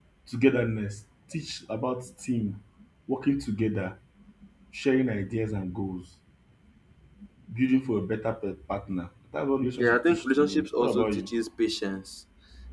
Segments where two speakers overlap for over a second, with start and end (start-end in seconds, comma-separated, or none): 9.8-11.3